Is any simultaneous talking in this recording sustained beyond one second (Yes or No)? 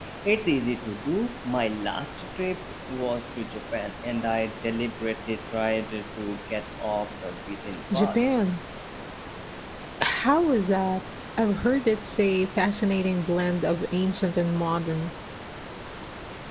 No